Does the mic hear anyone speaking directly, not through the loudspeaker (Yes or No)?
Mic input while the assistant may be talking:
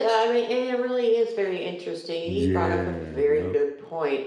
Yes